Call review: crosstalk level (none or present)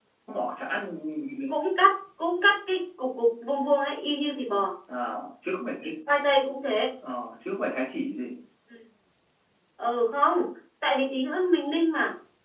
none